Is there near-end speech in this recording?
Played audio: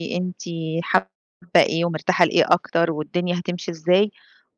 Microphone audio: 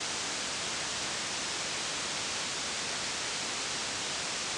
No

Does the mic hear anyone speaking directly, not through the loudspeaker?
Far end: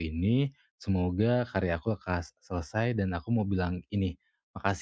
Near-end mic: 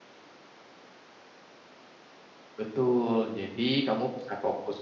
Yes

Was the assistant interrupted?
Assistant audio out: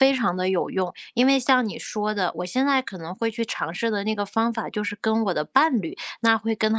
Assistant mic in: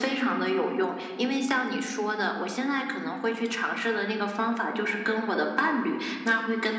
No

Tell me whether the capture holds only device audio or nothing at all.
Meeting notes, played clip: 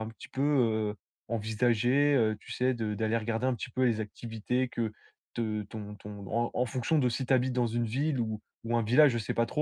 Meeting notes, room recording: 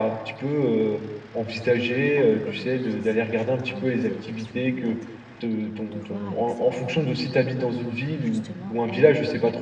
No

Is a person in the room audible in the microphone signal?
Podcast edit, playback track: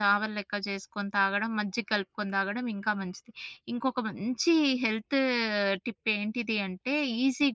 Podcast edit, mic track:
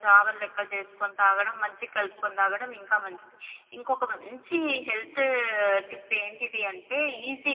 No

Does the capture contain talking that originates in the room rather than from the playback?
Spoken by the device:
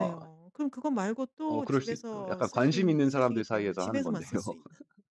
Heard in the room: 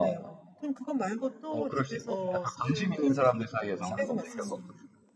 Yes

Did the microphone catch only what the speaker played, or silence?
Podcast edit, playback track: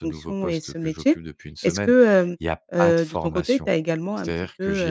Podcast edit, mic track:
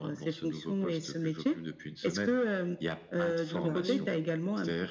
No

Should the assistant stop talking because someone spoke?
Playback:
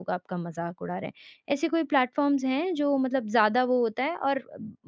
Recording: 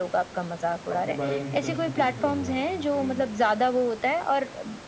Yes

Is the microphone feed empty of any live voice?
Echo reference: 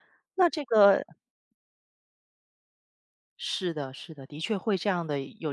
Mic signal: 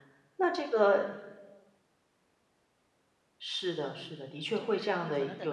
No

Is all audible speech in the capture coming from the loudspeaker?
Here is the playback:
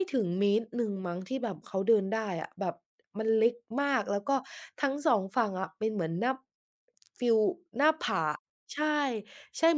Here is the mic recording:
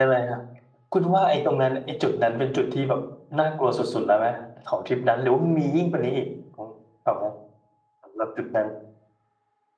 No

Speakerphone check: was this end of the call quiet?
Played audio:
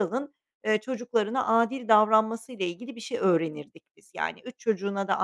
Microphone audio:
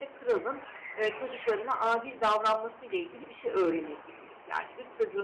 Yes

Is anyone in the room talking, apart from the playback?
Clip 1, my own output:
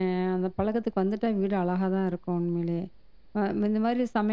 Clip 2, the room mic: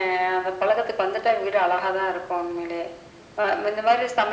No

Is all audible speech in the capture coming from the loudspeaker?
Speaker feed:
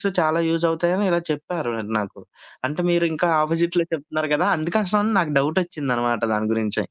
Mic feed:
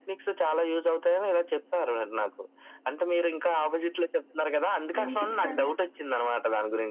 No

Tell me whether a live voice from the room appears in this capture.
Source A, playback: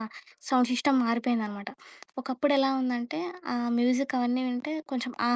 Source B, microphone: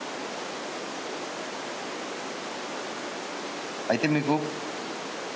Yes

